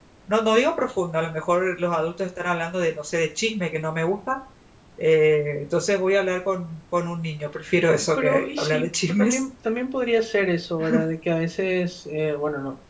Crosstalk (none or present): present